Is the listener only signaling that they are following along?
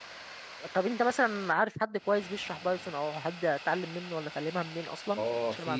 No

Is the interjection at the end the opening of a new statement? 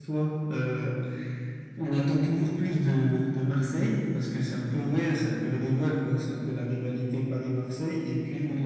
No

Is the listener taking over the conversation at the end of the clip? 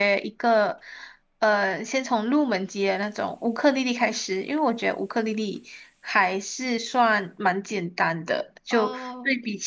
No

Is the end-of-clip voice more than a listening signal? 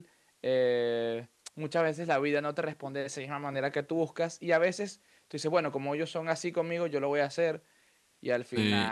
Yes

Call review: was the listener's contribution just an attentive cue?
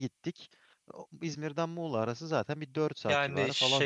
No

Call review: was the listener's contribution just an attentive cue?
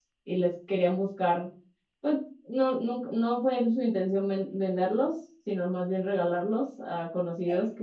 Yes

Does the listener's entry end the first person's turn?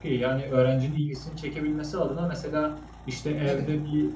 No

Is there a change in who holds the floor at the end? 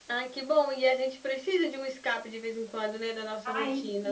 Yes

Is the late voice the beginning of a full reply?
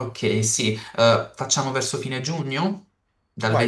Yes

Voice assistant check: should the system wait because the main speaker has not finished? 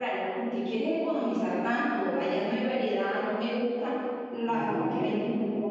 No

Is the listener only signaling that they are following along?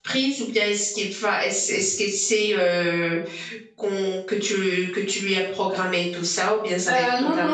No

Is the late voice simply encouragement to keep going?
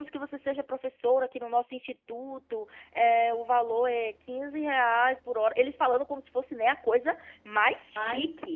Yes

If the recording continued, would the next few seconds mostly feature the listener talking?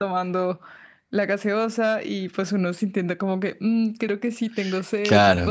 Yes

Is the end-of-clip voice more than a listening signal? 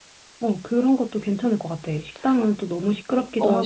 Yes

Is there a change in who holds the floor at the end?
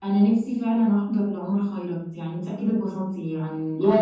Yes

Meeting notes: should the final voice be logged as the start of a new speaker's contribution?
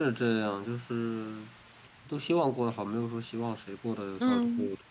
Yes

